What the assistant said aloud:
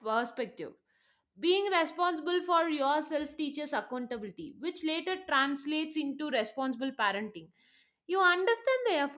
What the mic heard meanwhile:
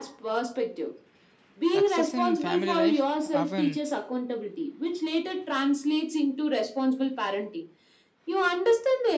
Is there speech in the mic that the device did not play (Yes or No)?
Yes